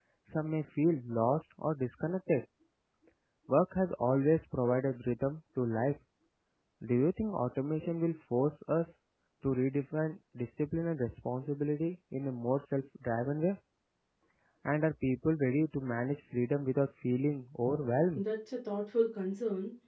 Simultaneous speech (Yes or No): No